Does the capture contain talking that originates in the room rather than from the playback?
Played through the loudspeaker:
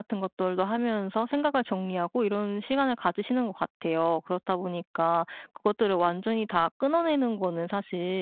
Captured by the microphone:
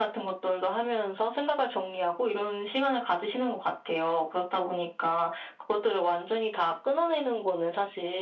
No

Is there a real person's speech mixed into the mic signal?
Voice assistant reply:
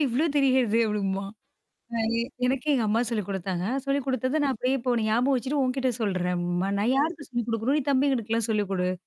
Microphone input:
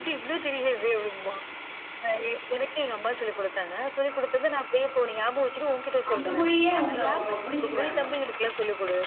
Yes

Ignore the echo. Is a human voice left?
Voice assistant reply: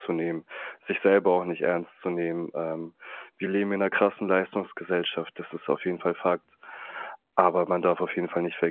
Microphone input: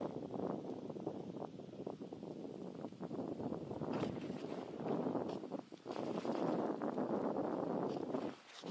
No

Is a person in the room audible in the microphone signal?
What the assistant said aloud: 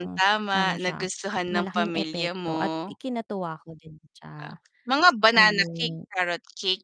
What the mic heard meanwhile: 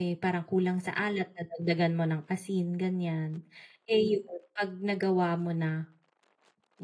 Yes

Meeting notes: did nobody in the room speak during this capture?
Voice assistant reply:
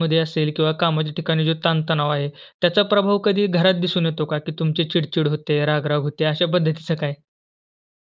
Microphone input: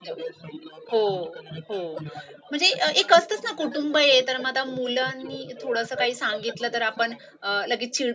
No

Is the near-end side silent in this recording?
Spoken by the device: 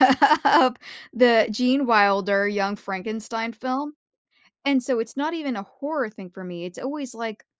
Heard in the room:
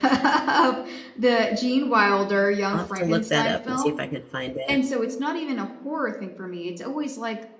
No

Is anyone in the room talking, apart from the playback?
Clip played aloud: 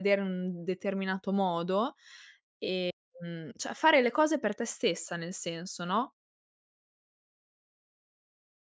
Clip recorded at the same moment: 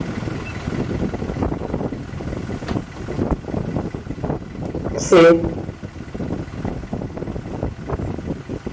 Yes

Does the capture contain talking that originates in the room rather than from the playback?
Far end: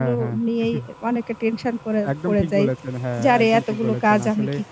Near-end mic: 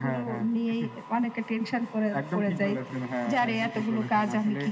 Yes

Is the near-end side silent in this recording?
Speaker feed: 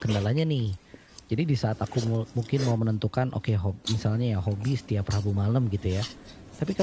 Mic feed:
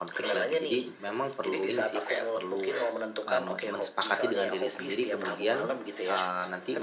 No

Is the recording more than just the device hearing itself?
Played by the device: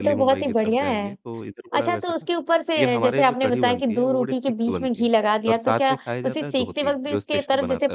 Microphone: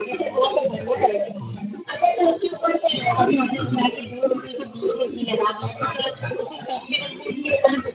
No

